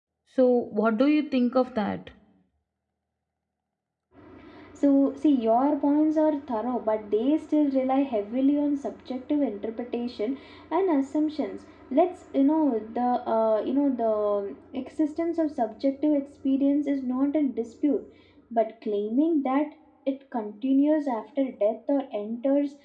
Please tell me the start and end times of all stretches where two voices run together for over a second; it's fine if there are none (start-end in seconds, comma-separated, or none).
none